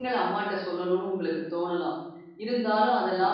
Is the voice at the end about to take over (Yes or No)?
No